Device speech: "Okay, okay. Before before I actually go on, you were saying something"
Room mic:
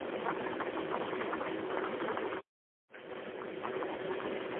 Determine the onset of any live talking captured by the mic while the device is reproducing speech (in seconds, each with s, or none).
none